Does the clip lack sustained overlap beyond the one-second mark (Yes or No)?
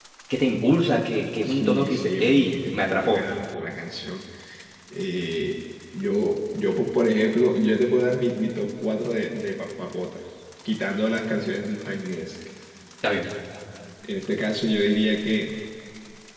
No